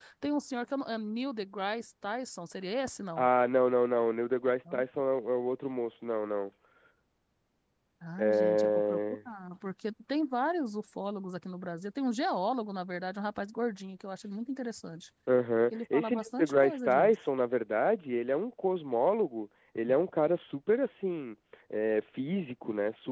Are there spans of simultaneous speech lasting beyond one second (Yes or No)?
Yes